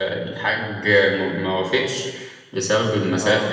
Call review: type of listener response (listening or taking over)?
listening